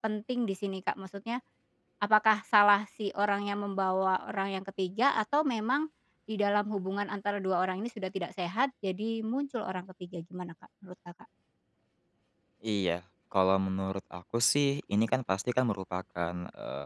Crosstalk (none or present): none